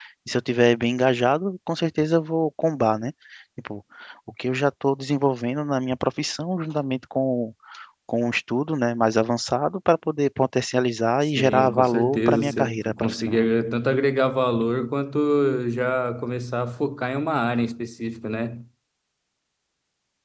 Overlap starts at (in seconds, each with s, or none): 11.2 s